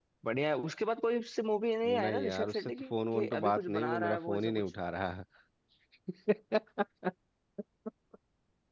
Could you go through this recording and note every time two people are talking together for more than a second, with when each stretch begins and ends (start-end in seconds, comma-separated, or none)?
2.0-4.6